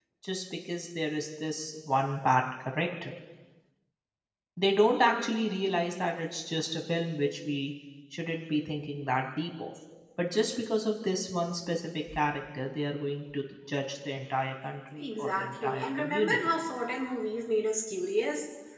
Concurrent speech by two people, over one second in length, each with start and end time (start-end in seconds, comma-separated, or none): 15.0-16.4